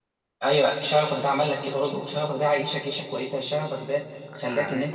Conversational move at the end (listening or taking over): listening